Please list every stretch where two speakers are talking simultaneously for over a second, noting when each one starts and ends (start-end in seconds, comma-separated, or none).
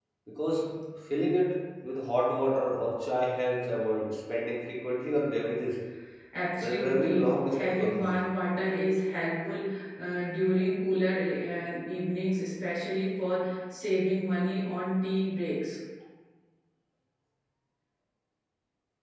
6.6-8.2